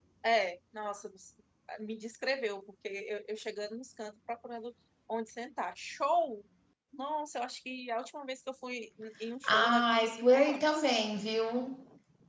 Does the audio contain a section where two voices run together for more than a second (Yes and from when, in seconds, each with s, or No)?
Yes, from 9.4 s